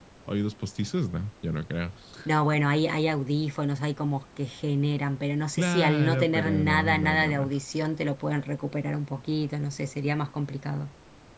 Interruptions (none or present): present